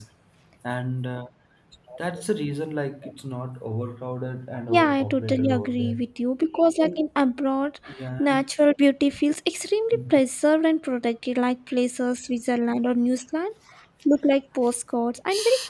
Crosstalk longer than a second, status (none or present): present